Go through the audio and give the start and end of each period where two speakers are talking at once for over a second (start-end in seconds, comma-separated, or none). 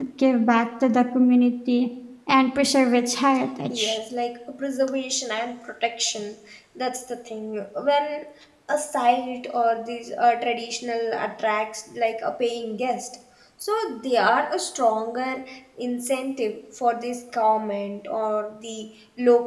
none